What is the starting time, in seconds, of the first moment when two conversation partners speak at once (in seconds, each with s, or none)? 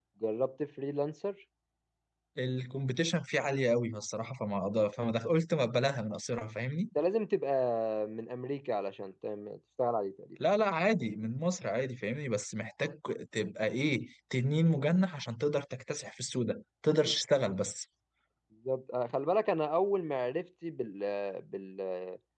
none